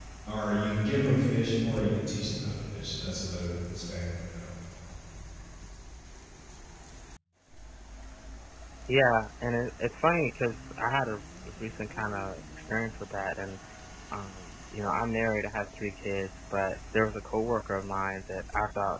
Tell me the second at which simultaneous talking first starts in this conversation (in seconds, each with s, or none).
none